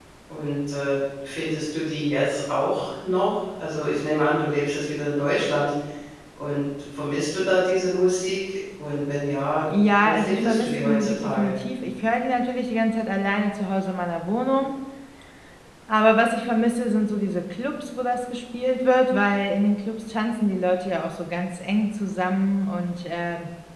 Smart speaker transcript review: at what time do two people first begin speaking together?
10.0 s

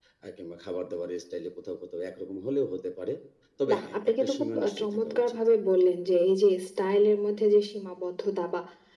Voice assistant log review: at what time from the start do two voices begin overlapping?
3.7 s

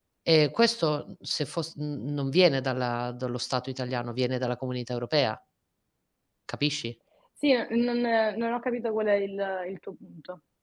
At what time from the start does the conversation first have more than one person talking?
none

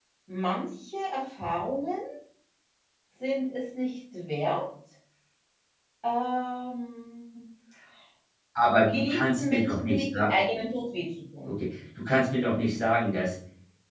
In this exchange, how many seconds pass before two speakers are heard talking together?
8.9 s

